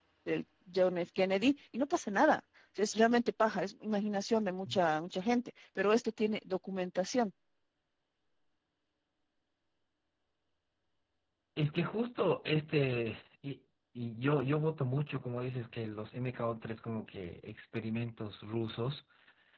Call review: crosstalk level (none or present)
none